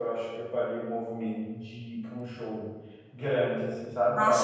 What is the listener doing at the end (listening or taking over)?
taking over